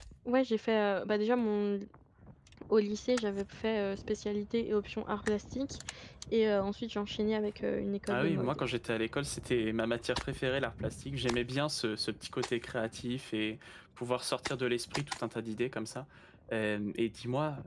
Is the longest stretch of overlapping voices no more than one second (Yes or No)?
Yes